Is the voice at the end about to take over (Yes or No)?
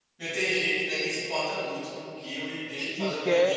Yes